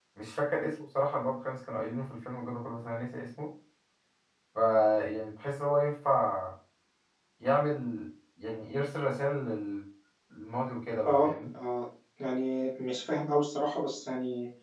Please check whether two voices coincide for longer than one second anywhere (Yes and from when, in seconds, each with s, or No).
No